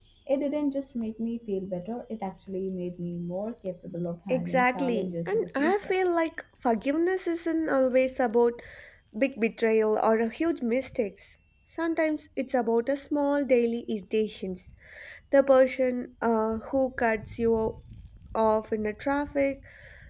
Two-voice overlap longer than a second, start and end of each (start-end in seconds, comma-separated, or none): 4.3-5.9